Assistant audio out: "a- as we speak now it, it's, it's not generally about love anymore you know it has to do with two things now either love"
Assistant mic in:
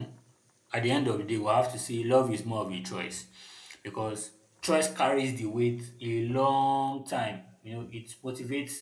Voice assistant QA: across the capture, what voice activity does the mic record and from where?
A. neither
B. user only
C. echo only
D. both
B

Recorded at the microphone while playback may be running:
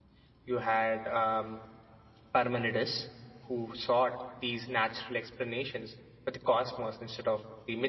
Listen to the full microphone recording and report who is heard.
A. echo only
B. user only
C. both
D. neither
B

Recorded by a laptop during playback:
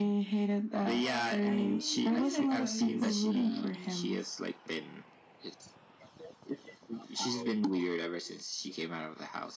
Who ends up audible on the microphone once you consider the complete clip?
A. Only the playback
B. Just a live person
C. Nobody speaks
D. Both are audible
D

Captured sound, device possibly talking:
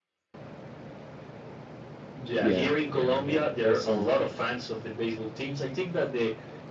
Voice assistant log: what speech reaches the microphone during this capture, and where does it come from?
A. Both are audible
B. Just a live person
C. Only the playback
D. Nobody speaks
A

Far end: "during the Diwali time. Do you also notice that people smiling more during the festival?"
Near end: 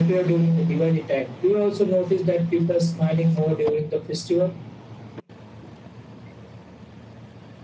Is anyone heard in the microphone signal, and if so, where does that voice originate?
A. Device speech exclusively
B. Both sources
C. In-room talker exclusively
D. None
A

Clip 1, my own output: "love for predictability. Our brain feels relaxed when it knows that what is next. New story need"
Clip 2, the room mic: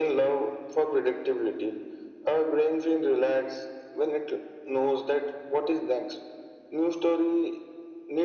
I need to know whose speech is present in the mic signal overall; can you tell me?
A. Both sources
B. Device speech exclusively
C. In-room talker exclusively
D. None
B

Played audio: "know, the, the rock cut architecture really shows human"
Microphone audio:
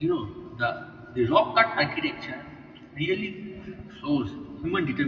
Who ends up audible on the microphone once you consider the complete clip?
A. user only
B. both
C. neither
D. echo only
D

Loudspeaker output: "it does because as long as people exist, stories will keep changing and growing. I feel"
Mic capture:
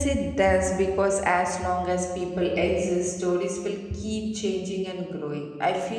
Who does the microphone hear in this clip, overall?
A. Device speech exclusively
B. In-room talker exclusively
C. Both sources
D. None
A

